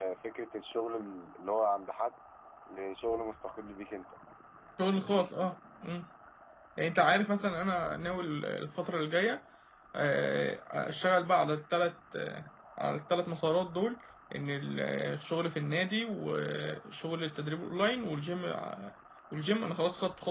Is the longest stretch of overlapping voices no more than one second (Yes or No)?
Yes